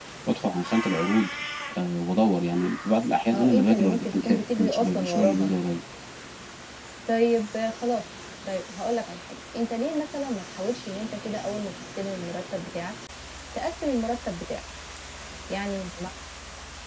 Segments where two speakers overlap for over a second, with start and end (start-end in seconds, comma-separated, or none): 3.3-5.5